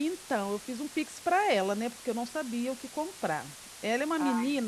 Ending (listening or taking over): listening